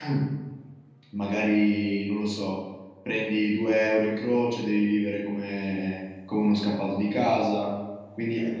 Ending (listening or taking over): listening